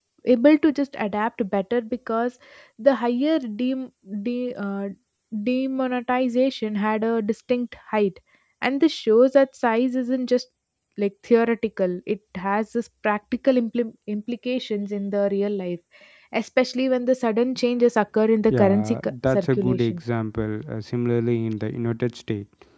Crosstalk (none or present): present